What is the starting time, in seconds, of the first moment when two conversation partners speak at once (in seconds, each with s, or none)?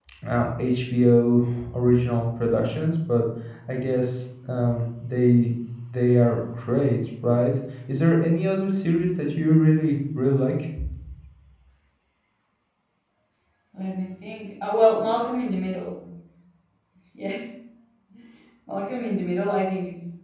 none